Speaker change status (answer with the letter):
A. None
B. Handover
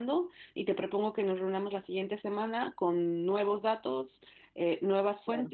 A